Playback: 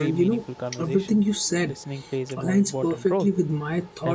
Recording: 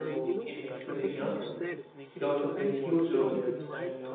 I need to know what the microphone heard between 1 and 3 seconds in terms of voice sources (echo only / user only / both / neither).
both